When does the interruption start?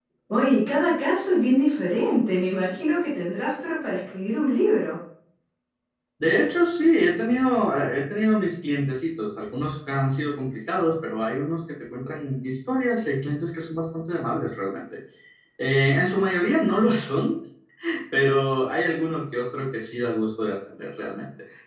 none

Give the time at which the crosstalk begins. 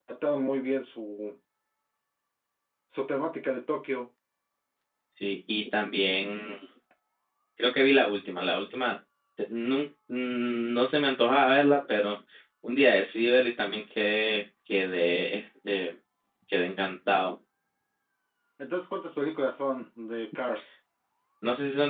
none

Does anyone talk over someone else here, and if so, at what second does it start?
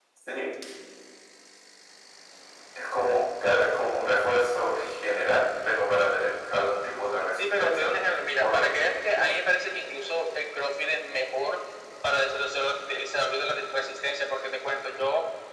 7.6 s

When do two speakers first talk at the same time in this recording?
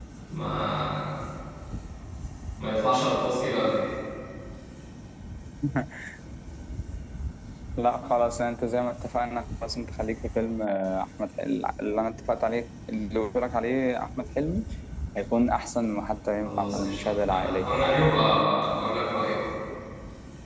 16.4 s

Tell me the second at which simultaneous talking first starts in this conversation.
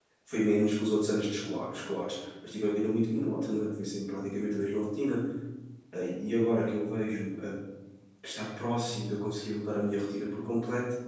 none

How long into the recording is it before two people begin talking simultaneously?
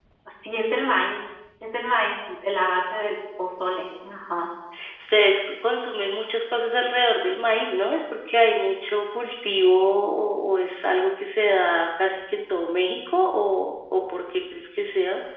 none

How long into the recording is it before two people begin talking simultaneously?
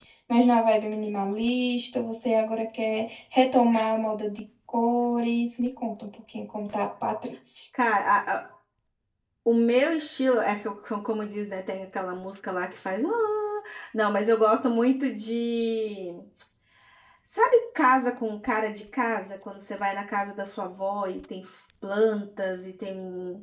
none

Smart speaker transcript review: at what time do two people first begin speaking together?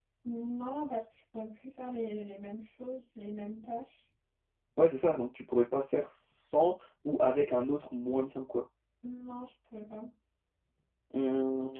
none

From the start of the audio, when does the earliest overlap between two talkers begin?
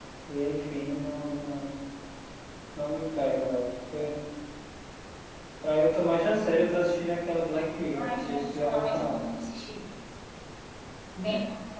7.9 s

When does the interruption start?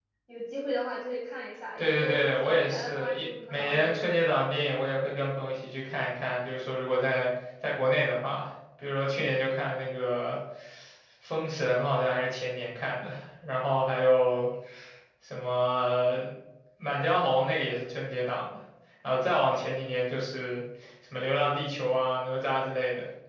1.8 s

